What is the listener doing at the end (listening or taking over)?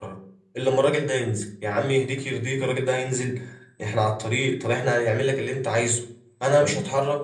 listening